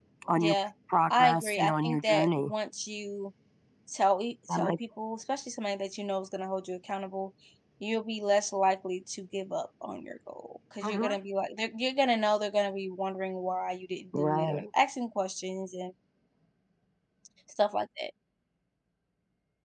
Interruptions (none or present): present